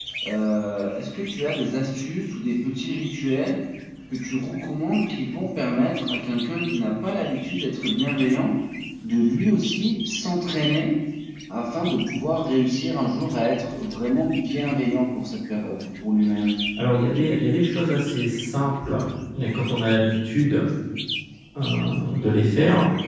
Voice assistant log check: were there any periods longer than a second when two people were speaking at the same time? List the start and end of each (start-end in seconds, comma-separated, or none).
none